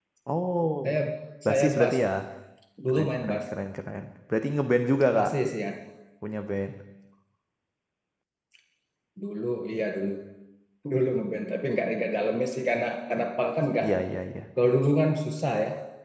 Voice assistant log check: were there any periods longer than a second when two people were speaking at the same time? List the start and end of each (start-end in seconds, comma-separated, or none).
none